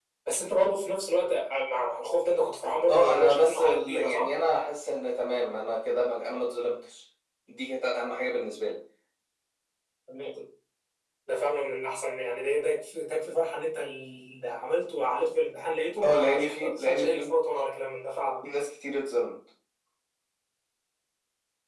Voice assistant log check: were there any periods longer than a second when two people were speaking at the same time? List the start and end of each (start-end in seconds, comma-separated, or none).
2.9-4.3, 16.0-17.3